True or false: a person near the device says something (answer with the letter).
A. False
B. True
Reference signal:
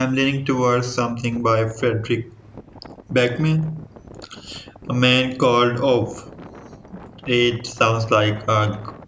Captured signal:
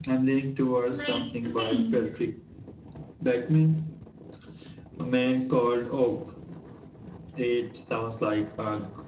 B